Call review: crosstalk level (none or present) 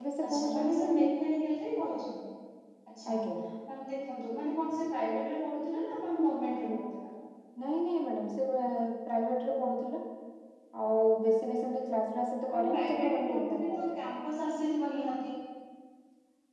present